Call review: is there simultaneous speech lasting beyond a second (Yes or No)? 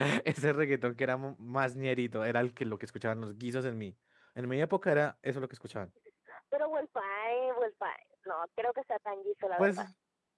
No